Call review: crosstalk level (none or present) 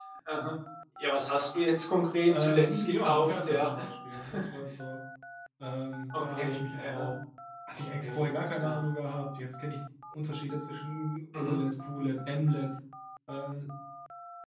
present